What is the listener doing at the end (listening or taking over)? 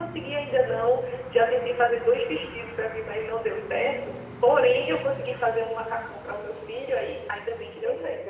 taking over